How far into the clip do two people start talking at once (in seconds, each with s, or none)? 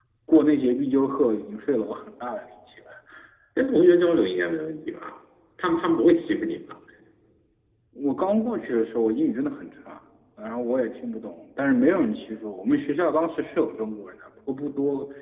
none